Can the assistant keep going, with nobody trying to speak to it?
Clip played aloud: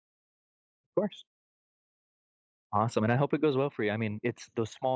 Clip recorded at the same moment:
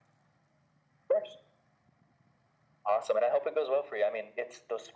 Yes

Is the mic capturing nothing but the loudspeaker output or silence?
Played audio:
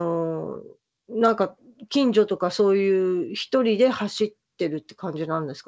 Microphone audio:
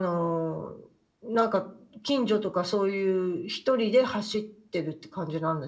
Yes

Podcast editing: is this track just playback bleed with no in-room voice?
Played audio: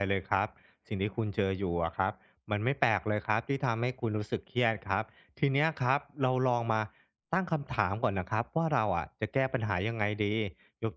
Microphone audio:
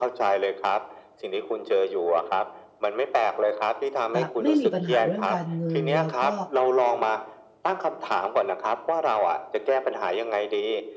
No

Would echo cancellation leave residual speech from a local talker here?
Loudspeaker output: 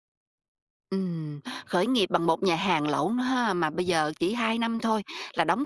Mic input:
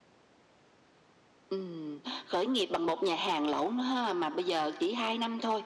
No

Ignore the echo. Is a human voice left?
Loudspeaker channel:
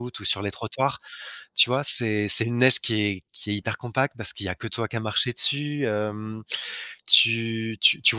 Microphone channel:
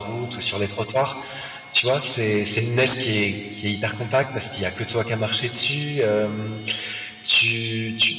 No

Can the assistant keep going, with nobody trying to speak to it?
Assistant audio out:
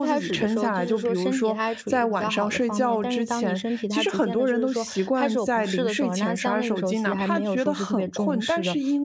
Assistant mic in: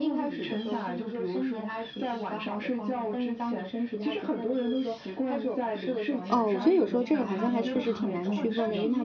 No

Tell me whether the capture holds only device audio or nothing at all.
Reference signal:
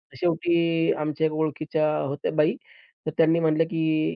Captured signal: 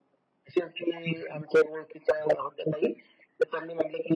Yes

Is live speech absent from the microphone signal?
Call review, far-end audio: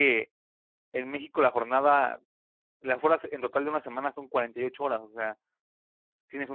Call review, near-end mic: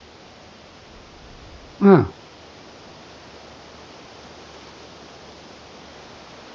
No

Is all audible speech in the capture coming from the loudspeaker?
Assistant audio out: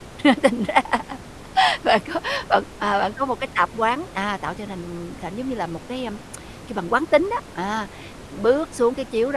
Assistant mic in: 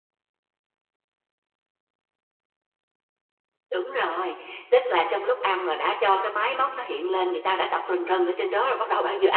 No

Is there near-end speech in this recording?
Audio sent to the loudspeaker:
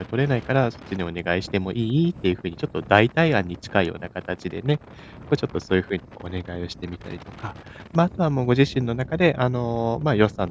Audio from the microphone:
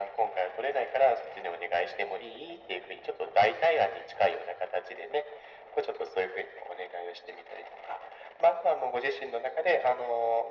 No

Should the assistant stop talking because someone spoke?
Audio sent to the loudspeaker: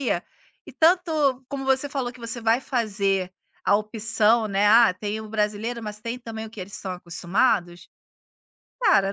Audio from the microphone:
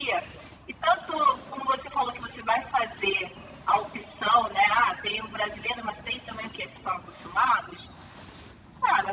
No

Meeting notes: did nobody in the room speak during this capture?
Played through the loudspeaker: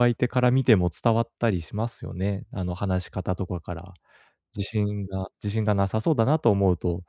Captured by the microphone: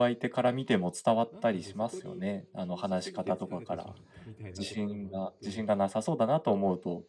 No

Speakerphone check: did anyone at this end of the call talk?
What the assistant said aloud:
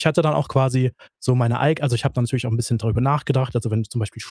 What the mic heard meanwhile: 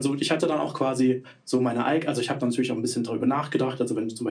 No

